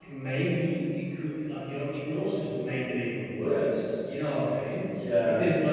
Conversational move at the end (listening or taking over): listening